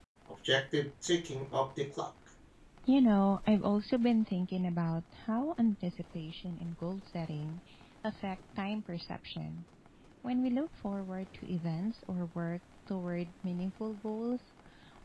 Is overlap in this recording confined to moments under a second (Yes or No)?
Yes